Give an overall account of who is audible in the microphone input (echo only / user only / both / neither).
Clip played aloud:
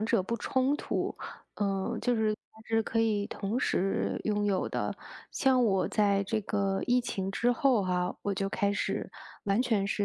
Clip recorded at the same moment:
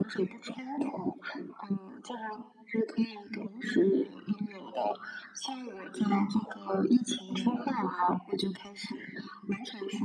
echo only